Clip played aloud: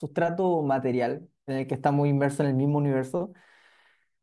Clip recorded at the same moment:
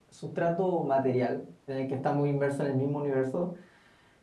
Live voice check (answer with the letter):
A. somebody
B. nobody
B